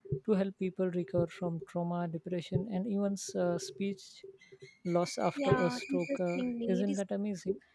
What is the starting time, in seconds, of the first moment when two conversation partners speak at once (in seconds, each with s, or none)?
5.4 s